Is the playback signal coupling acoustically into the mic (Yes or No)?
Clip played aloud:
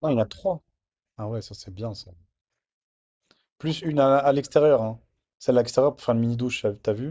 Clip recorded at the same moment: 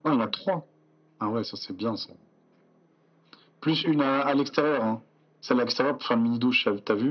Yes